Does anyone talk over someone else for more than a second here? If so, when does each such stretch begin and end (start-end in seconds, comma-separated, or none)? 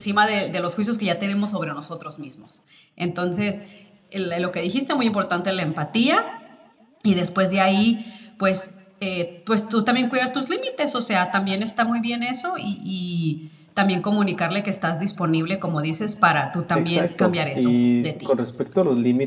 16.8-18.1